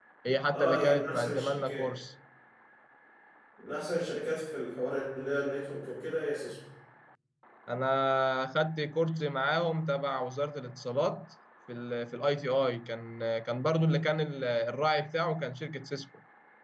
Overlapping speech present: Yes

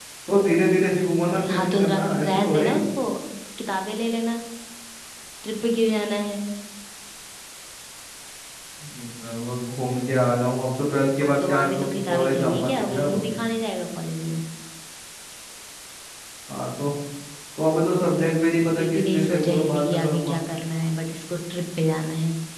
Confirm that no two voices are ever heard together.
No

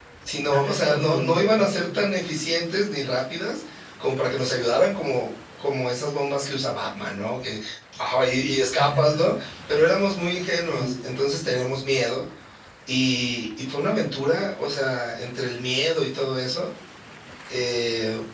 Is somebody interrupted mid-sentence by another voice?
Yes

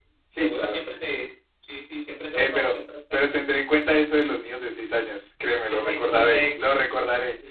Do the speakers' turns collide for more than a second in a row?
Yes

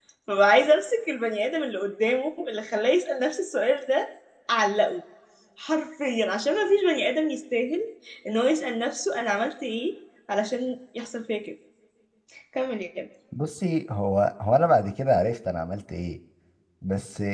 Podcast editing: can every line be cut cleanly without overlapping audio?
Yes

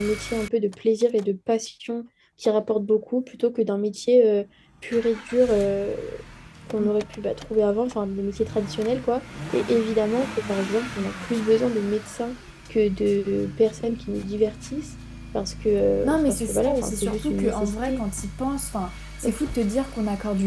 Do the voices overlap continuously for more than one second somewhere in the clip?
Yes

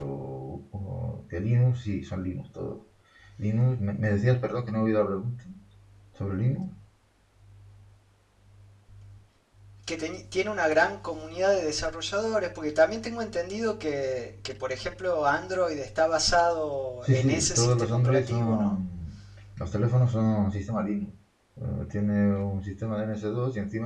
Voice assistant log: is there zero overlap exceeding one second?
No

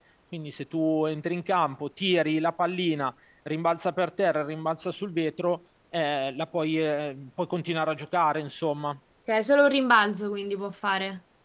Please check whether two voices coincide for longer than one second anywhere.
No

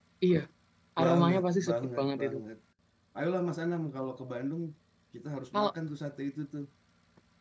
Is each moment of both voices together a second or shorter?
No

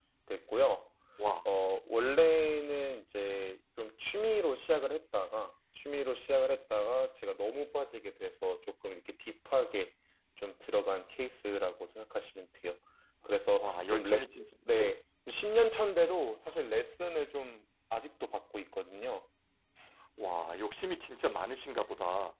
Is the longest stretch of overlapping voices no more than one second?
No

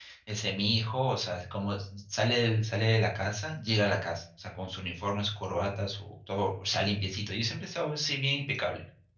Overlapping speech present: No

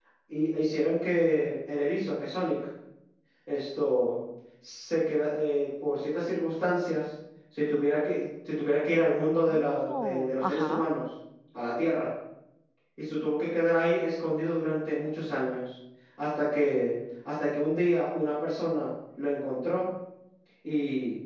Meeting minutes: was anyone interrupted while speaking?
Yes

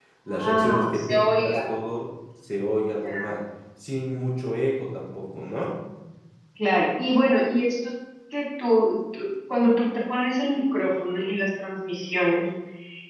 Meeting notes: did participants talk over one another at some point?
Yes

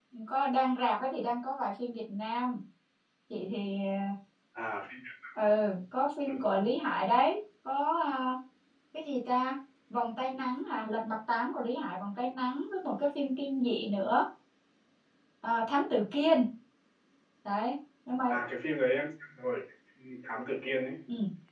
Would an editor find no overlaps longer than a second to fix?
Yes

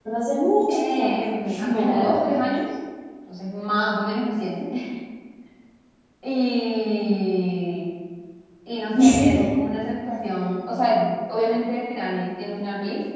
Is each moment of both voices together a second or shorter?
No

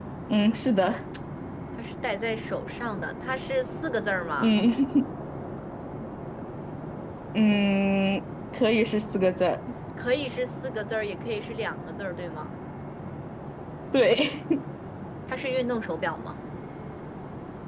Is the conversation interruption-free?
Yes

